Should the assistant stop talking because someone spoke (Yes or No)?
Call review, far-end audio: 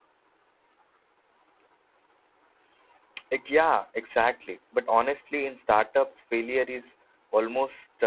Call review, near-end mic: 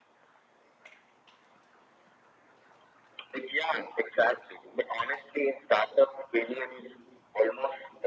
No